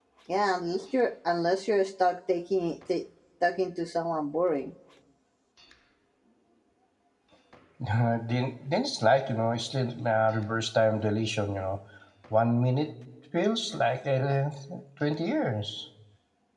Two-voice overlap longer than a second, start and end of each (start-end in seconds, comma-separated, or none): none